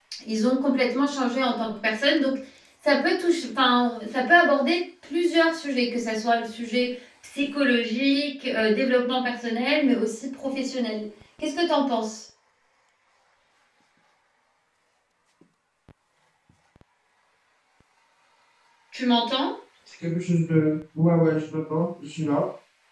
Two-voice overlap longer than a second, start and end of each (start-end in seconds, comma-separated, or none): none